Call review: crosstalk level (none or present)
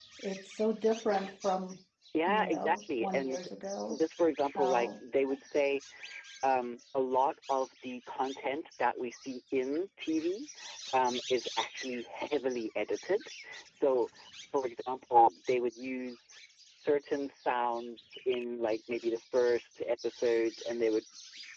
present